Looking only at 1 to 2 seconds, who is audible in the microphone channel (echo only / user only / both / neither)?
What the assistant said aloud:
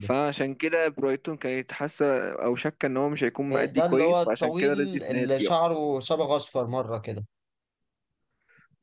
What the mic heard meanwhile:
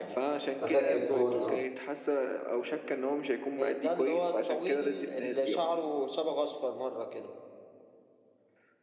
both